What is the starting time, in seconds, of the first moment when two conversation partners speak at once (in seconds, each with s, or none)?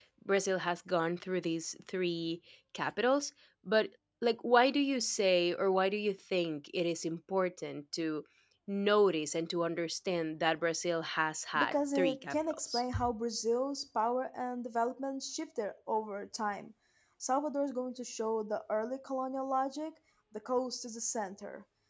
11.6 s